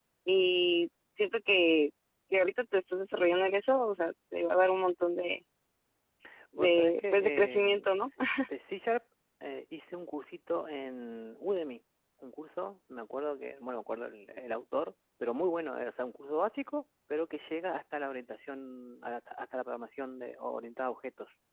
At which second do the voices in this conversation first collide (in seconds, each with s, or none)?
6.6 s